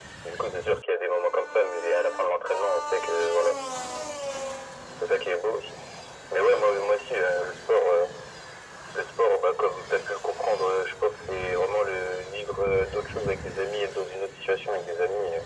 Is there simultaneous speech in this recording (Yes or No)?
No